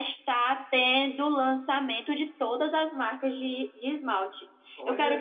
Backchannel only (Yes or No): Yes